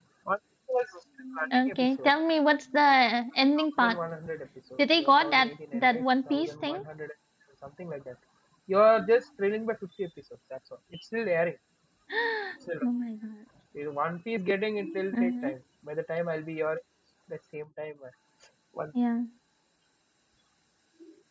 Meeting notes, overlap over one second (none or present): present